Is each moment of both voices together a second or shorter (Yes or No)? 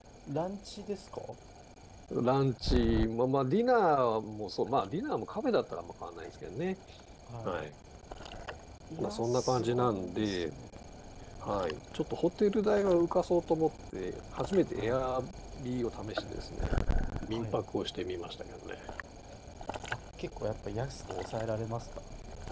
No